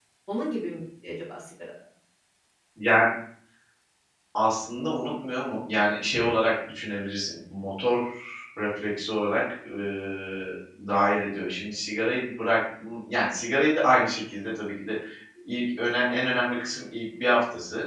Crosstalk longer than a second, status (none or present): none